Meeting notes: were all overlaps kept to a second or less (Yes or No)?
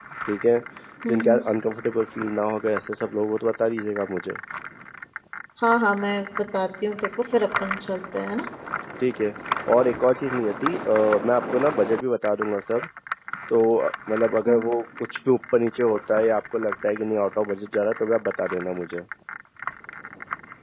Yes